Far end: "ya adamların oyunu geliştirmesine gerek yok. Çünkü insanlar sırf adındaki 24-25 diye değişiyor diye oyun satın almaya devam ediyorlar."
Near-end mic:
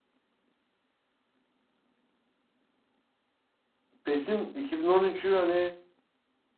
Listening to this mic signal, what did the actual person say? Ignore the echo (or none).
PES'in 2013'ü hani